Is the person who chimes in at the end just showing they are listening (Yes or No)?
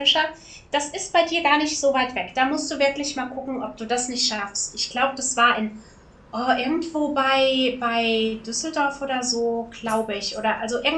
Yes